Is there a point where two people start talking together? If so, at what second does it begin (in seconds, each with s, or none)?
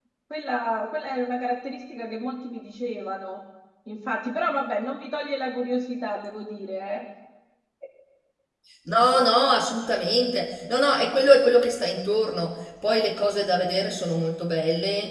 none